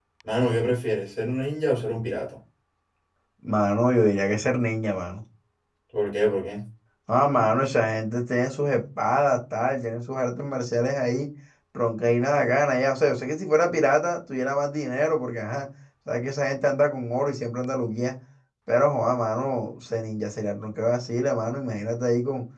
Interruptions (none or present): none